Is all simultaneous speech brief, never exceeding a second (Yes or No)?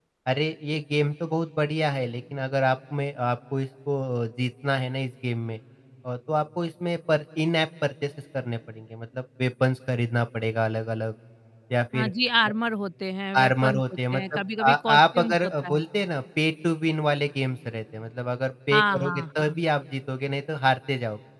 No